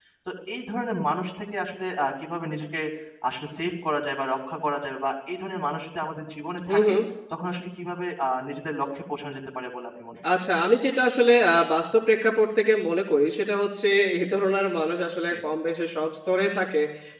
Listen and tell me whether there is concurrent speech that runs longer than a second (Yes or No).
No